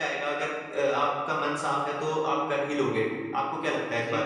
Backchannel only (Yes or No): No